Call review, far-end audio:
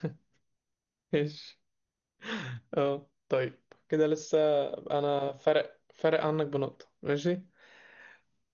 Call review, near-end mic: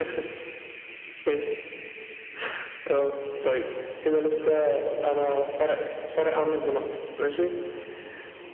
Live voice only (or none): none